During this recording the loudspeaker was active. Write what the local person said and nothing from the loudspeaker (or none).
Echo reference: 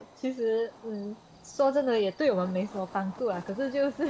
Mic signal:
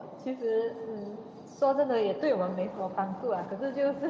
none